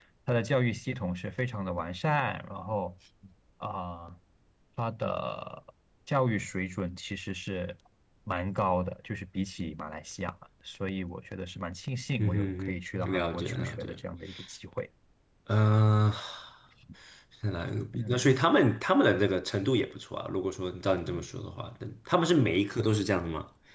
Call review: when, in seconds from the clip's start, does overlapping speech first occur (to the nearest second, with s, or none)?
12 s